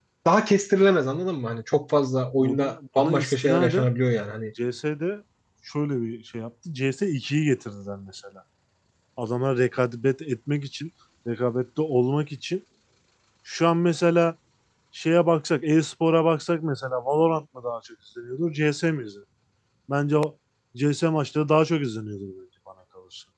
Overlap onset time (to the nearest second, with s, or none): 2 s